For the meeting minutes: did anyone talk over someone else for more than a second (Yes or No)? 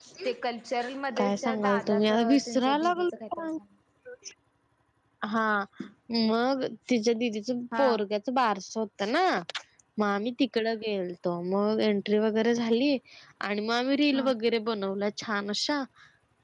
Yes